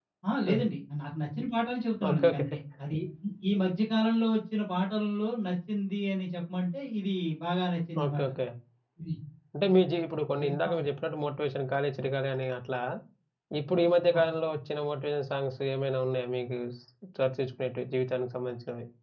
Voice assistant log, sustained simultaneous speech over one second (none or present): none